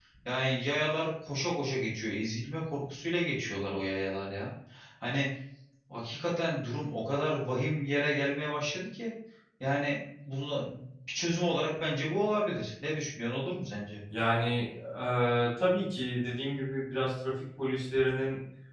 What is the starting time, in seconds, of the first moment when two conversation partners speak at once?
none

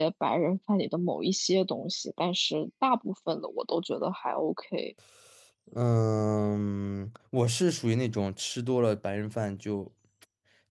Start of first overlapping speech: none

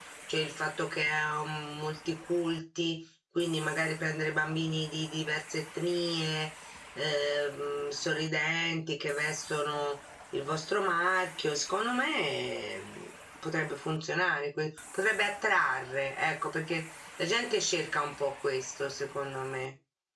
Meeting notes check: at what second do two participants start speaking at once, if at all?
none

